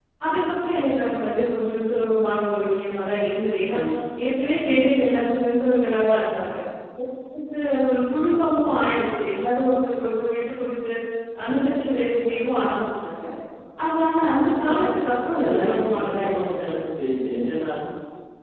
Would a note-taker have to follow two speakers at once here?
Yes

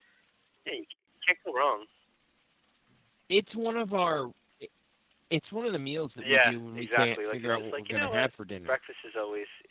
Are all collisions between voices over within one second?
No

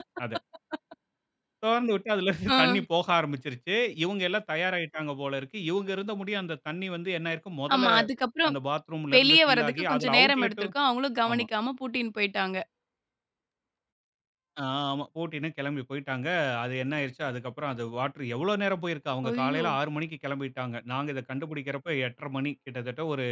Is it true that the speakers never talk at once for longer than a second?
No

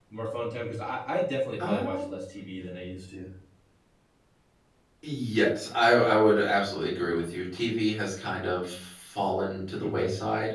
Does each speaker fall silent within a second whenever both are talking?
Yes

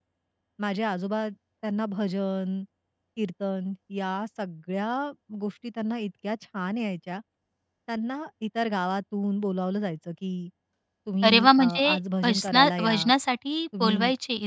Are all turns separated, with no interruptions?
No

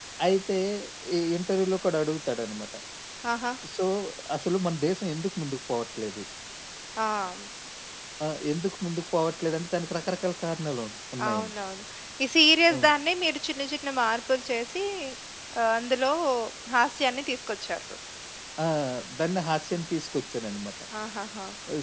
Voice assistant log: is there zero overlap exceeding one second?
Yes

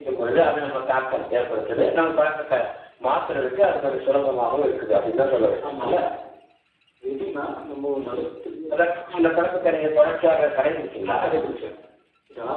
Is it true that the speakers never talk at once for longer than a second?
Yes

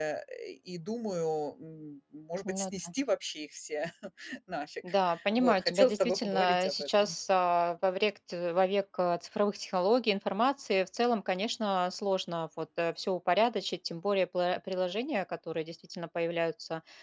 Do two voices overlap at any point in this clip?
Yes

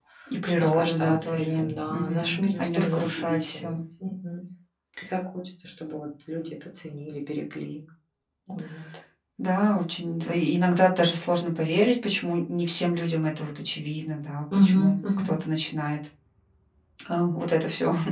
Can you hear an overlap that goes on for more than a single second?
Yes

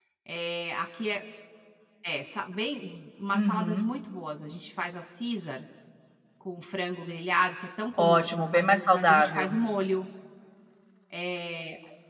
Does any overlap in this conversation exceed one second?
Yes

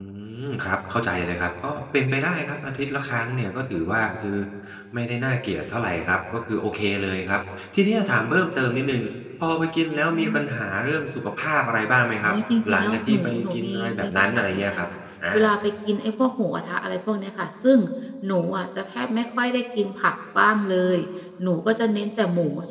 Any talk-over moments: Yes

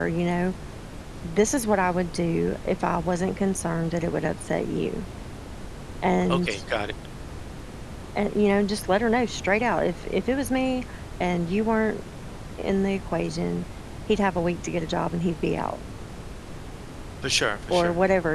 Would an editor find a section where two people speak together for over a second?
No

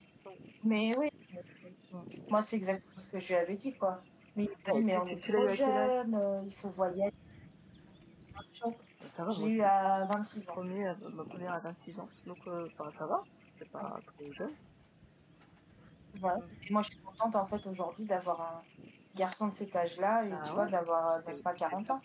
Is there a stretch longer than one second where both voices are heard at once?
Yes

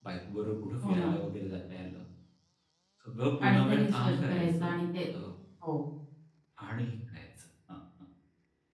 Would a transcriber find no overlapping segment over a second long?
No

